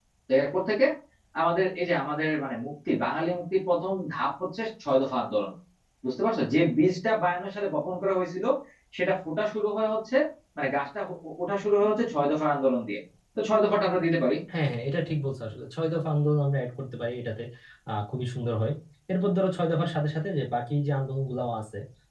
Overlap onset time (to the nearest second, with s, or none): none